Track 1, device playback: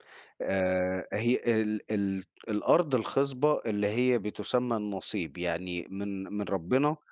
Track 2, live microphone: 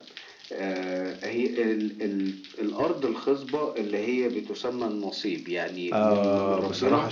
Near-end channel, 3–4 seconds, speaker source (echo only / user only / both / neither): echo only